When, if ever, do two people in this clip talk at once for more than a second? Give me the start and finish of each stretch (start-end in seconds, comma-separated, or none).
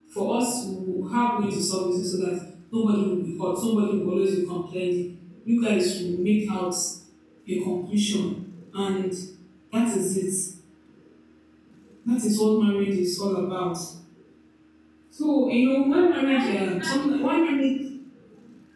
15.9-17.4